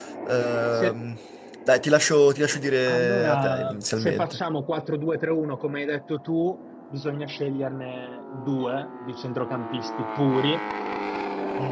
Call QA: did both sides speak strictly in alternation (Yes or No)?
No